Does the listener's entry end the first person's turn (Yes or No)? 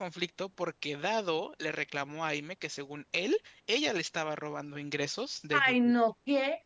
Yes